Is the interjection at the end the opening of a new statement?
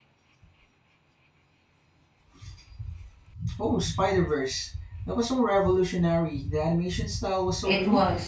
Yes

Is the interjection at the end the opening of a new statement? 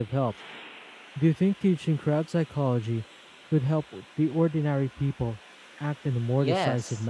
Yes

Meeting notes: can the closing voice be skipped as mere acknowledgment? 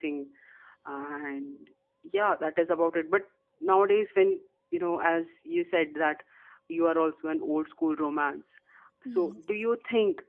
Yes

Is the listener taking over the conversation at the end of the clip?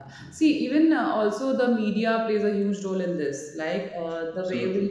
No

